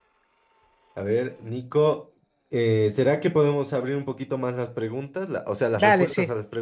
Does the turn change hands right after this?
Yes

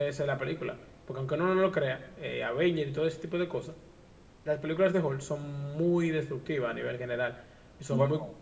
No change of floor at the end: Yes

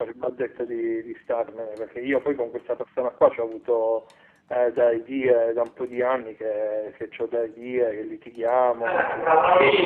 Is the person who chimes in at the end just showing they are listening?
No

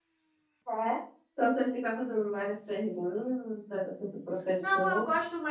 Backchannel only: No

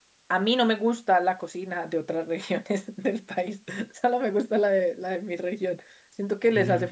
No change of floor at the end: Yes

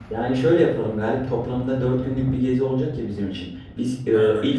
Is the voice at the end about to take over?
No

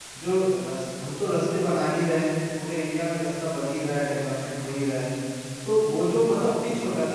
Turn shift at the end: No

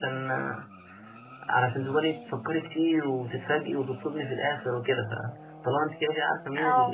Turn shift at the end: No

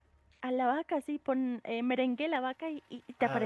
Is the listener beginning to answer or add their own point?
Yes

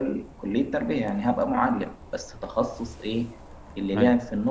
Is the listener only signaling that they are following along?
Yes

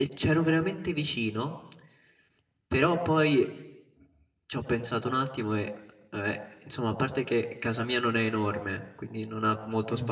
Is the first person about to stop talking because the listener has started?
No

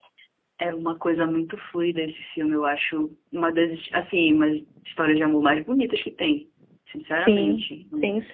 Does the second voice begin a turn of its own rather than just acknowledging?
Yes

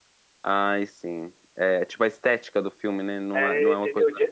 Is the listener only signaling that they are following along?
No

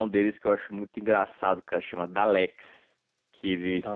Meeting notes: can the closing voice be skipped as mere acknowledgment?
Yes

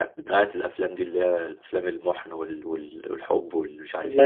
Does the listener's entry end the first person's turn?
Yes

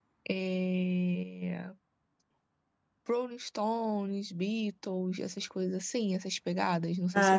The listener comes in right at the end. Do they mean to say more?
Yes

